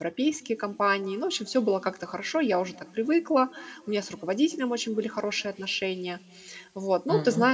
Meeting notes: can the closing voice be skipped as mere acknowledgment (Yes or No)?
Yes